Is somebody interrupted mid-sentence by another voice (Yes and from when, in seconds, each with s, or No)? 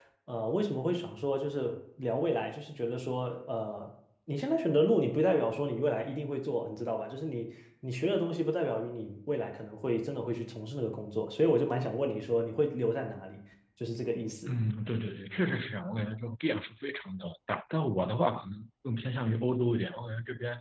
No